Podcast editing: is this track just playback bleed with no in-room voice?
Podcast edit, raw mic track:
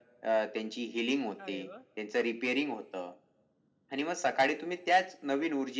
No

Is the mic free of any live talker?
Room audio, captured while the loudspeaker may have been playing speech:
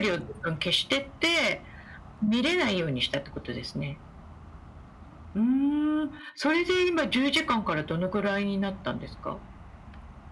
Yes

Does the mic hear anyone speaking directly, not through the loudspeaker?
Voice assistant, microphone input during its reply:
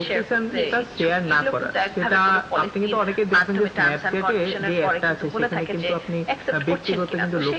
Yes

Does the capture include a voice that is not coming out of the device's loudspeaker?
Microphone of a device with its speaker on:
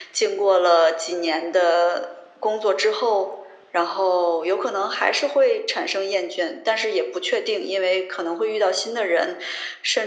No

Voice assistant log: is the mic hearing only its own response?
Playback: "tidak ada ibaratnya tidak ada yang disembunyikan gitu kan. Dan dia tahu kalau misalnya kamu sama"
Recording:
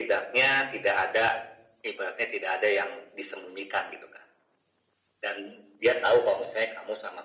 Yes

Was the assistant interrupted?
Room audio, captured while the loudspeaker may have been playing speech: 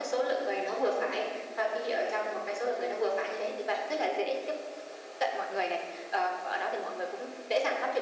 No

